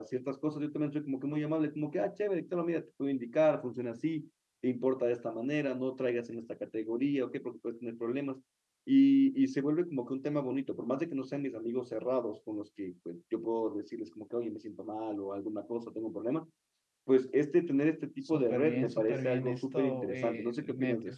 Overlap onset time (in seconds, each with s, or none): 18.2 s